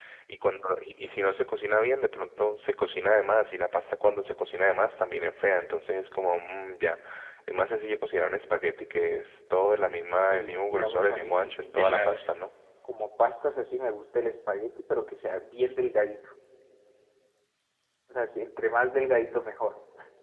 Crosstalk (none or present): present